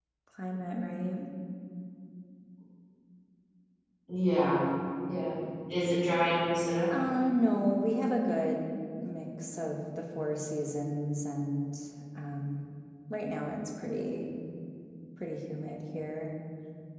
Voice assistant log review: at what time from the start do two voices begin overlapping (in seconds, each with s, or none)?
none